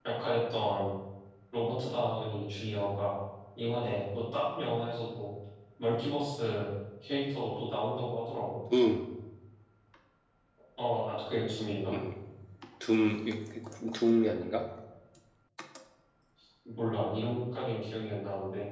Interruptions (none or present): none